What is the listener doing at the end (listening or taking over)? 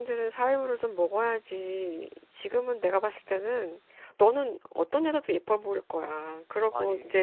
listening